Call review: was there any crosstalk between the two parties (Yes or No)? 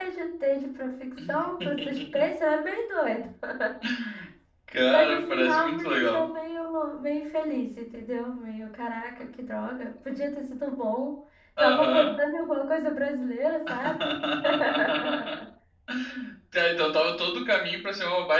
Yes